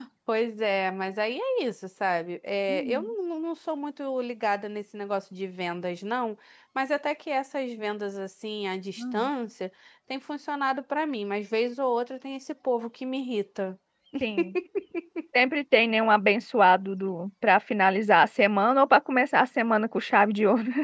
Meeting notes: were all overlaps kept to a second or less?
Yes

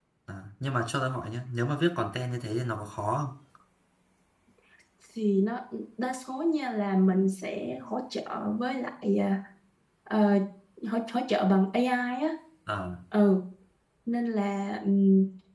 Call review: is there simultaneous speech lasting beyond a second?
No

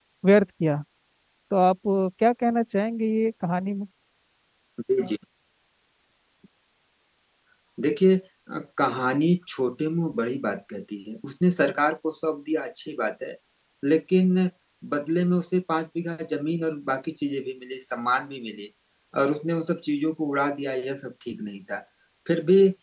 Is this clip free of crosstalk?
Yes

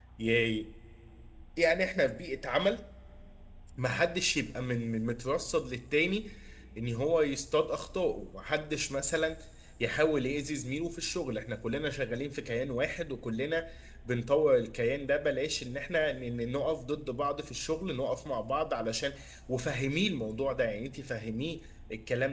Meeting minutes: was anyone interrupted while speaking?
No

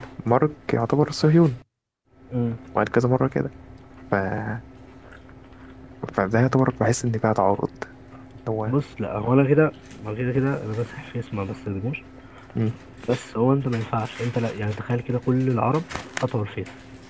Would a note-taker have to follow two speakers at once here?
No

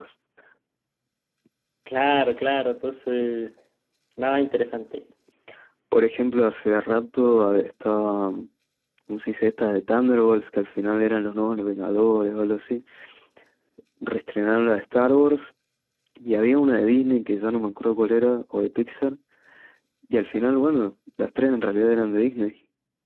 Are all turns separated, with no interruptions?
Yes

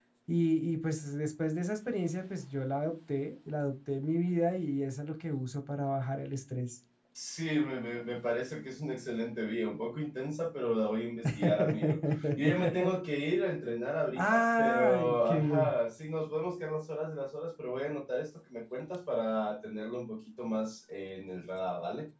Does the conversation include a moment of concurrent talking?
Yes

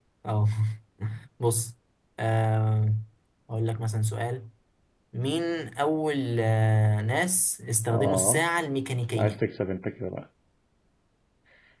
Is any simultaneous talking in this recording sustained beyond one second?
No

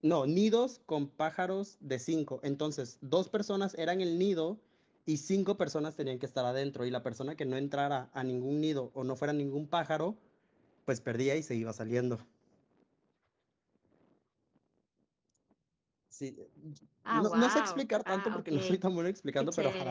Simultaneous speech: Yes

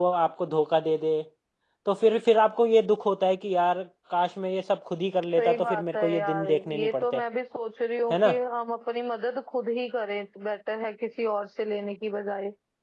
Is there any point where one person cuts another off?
Yes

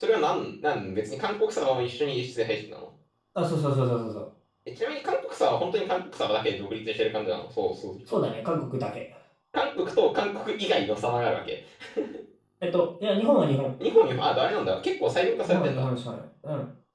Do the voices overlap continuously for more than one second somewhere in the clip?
No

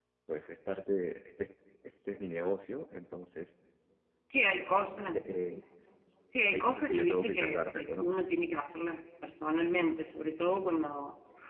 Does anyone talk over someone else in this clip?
Yes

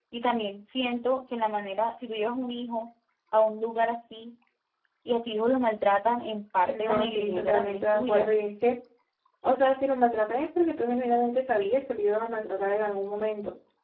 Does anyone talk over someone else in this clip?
Yes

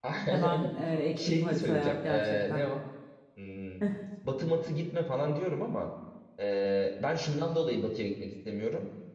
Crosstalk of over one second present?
Yes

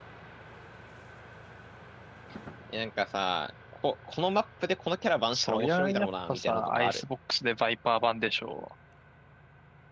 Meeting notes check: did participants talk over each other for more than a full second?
Yes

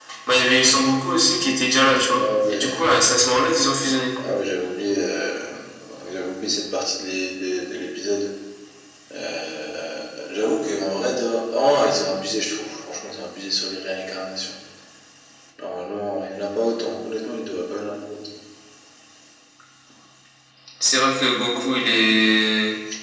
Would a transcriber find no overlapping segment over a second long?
No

